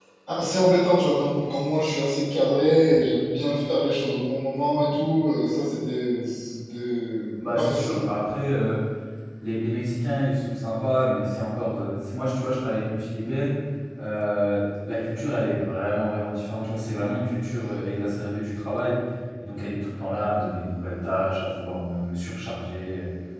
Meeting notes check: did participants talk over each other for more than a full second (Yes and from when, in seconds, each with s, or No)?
No